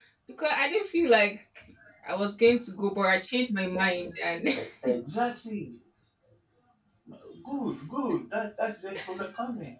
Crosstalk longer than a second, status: none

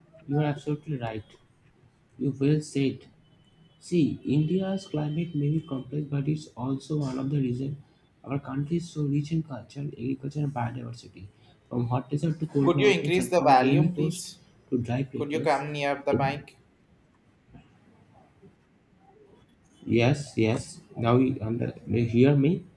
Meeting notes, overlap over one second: present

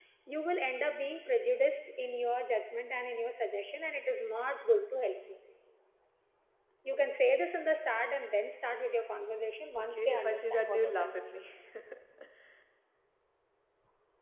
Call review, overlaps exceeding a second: present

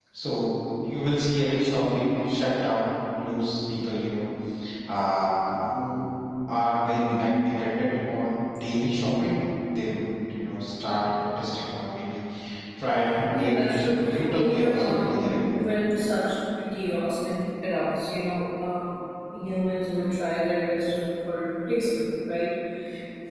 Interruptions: present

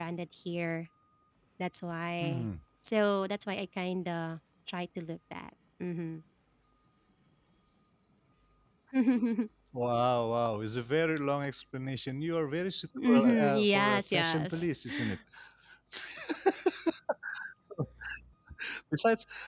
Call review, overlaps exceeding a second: present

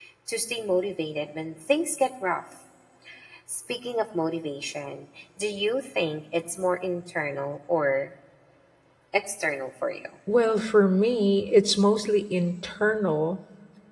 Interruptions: none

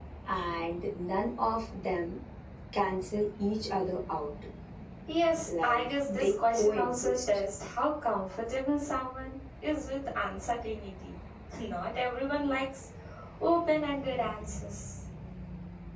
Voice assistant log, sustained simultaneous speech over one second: present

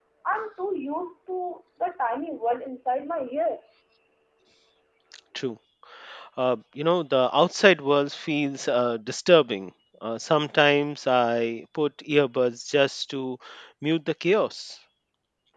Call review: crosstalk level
none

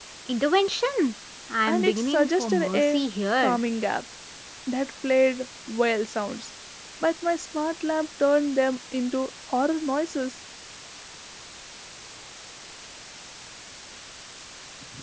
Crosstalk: present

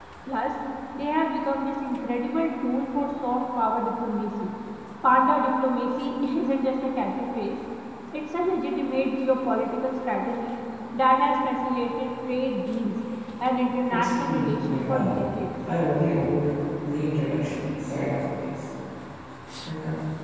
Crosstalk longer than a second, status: present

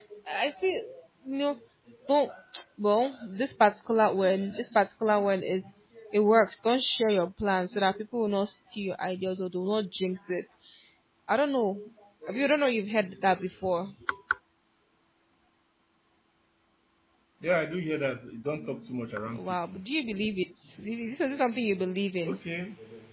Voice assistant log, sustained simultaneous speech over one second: none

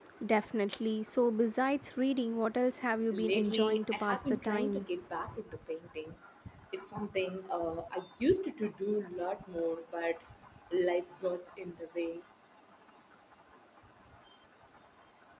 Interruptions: present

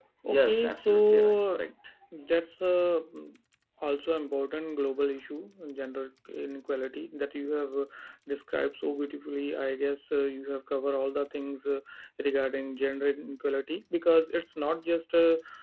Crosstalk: present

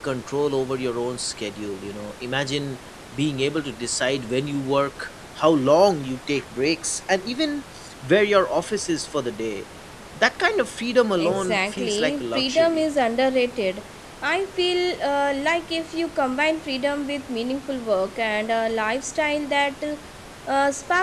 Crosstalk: present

